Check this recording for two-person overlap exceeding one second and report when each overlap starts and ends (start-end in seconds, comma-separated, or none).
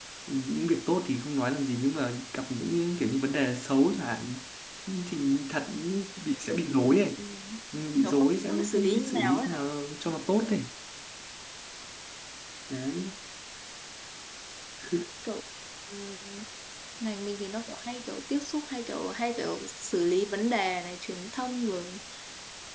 8.0-9.6